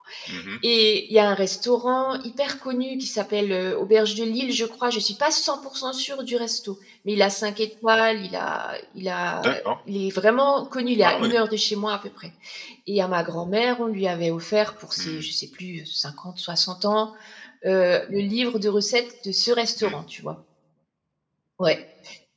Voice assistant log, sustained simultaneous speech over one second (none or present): none